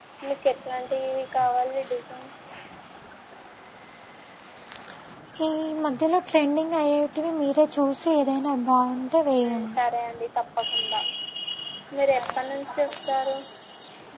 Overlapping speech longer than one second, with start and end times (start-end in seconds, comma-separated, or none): none